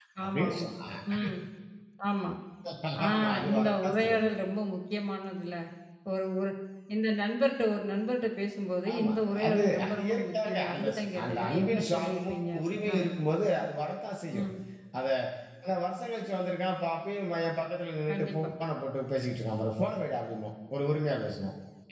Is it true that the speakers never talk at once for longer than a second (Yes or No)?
No